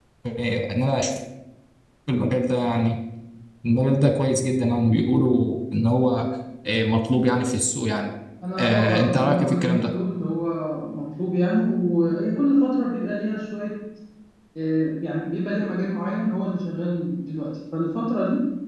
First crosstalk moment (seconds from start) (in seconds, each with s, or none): 8.6 s